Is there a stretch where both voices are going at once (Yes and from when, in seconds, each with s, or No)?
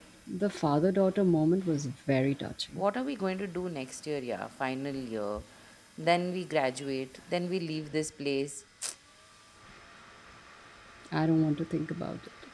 No